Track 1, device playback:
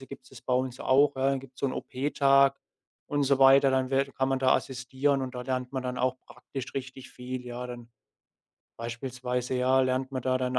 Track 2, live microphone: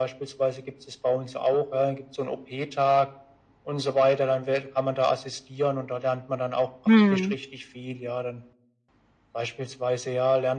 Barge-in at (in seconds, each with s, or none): 6.9 s